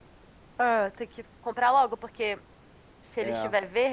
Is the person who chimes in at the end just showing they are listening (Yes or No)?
Yes